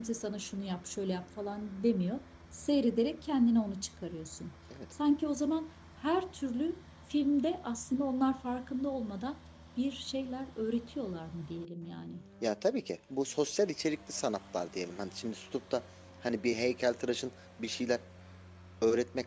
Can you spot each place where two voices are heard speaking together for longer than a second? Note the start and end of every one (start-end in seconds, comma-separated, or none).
none